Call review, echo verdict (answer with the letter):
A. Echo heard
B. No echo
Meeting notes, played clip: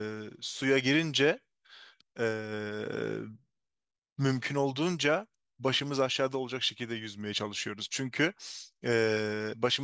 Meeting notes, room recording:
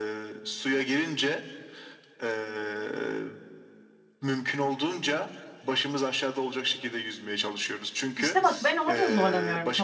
A